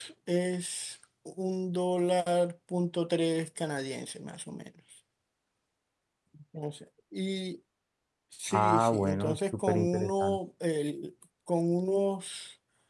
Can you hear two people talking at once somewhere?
Yes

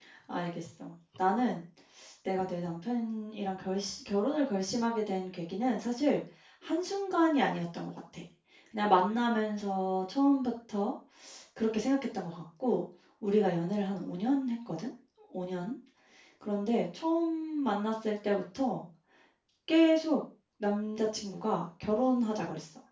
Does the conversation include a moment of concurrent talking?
No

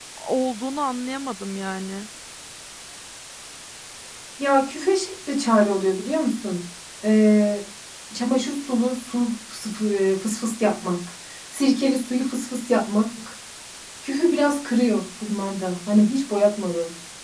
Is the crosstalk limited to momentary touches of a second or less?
Yes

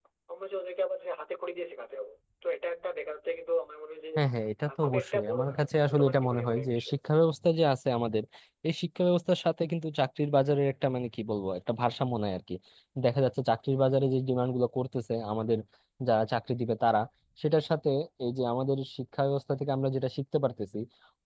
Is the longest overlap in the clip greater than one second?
Yes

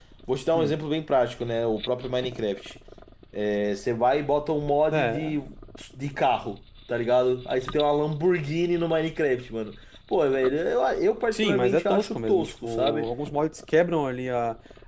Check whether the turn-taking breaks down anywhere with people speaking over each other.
Yes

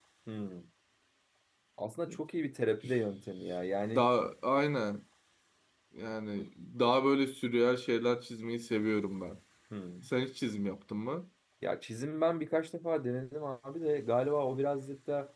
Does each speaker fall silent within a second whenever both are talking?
Yes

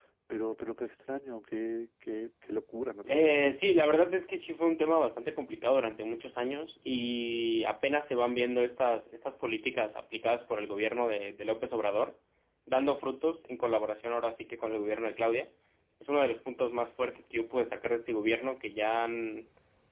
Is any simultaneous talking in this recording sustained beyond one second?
No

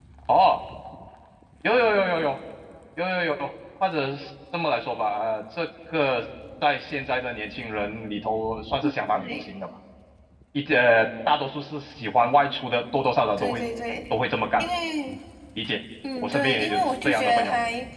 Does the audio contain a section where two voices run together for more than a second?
Yes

